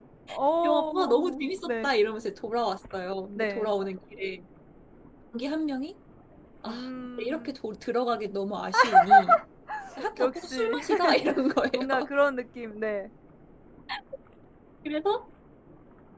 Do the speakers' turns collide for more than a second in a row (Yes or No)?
Yes